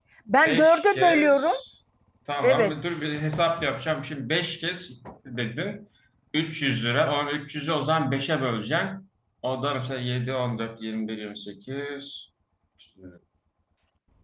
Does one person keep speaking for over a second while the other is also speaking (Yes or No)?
Yes